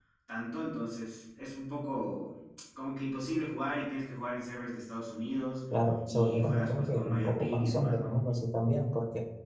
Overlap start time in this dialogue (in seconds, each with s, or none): 6.1 s